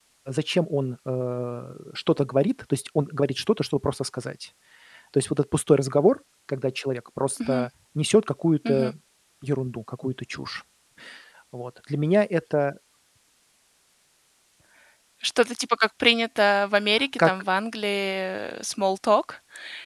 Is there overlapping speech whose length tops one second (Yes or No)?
No